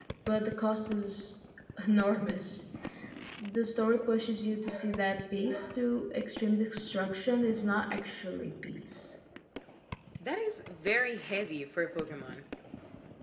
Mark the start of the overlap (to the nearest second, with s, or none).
none